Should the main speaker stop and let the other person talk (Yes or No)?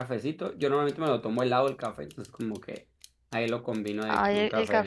Yes